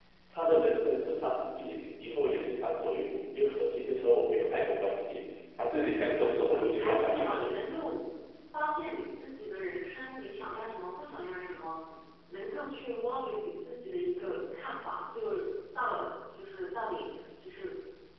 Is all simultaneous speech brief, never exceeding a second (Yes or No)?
No